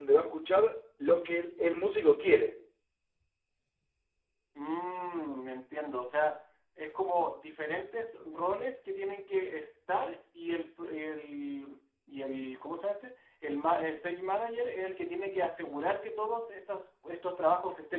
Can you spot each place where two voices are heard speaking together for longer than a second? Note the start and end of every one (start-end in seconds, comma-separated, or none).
none